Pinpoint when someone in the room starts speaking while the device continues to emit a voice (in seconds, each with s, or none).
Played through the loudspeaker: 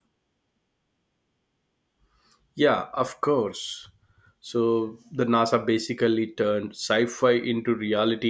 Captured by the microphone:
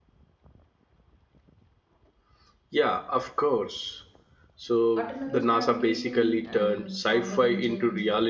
5.0 s